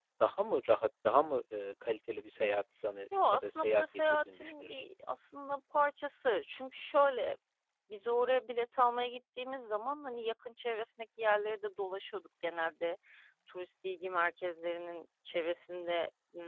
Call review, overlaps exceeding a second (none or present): present